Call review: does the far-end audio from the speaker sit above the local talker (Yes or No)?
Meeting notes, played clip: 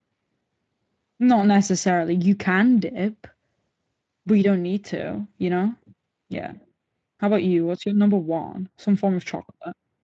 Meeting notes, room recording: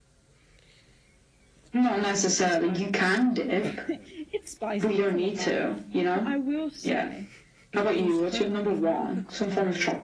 Yes